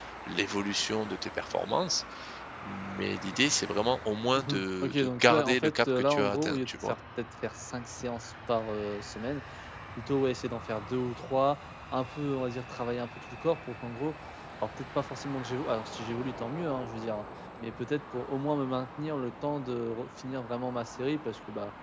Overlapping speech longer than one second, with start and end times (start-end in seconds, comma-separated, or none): 4.4-7.0